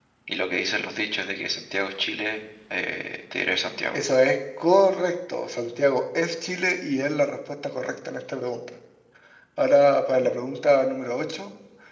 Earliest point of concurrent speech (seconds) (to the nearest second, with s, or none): none